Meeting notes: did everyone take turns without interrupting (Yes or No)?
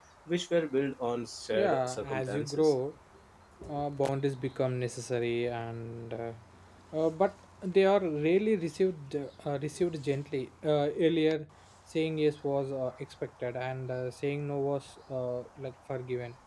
No